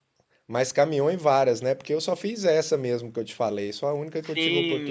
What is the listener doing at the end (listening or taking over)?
taking over